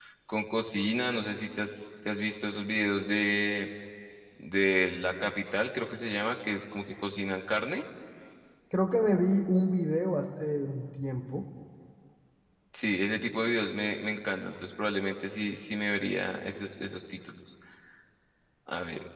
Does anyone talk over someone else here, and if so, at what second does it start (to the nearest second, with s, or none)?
none